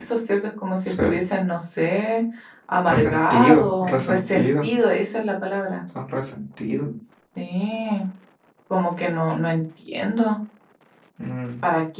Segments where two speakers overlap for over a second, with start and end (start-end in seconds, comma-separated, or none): 2.9-4.8